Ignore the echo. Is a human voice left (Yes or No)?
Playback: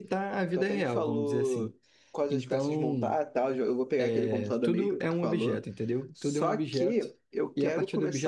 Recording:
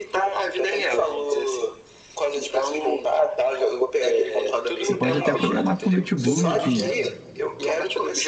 Yes